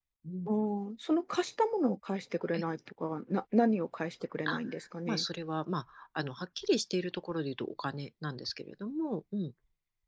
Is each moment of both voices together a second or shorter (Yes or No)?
Yes